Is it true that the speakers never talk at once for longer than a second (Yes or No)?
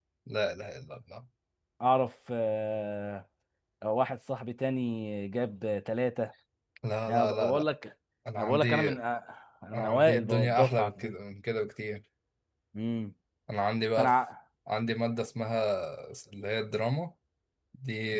No